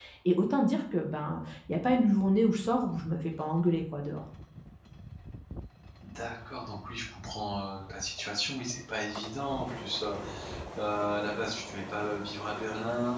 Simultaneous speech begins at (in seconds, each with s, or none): none